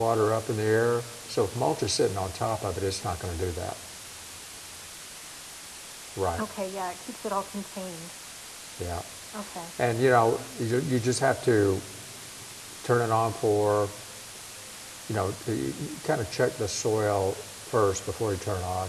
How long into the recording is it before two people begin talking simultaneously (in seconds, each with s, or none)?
none